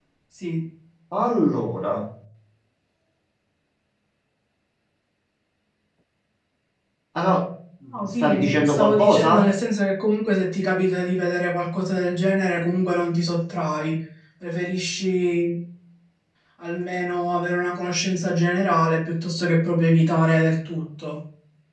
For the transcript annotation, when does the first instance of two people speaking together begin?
8 s

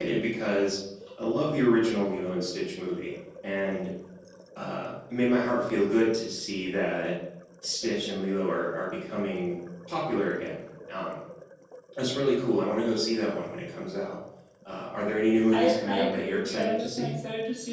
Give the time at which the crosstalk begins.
16 s

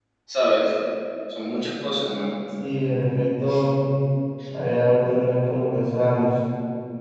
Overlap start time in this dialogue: none

